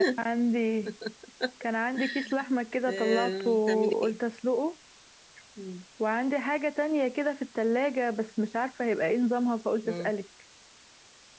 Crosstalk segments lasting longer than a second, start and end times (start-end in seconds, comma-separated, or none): 2.9-4.2